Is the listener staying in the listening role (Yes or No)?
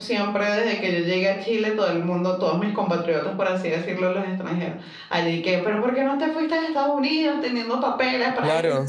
No